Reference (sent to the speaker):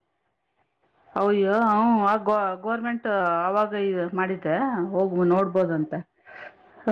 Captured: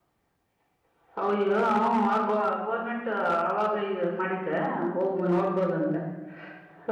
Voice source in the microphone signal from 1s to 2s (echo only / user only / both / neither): echo only